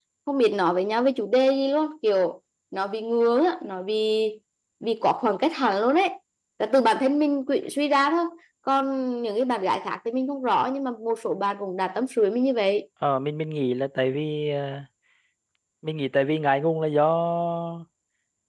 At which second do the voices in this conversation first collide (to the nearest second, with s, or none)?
none